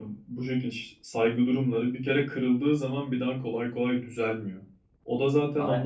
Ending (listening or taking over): listening